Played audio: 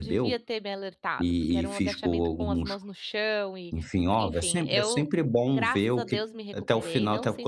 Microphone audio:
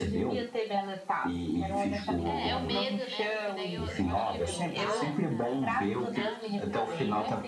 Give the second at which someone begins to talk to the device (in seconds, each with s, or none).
2.2 s